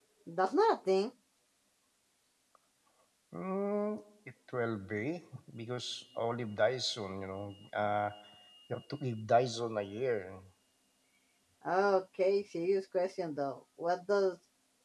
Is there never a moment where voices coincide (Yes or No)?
Yes